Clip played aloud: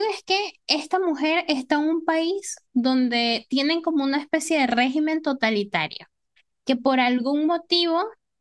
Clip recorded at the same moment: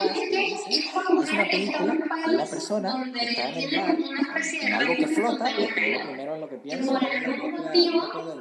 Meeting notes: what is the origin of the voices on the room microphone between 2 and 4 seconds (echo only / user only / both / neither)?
both